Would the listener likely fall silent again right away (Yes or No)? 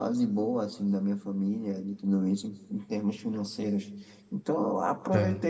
Yes